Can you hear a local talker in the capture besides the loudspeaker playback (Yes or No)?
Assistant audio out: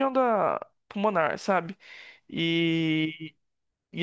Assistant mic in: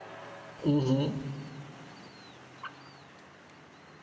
Yes